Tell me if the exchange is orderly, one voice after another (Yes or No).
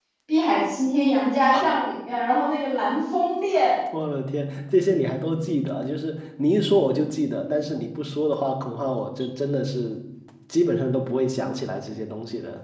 Yes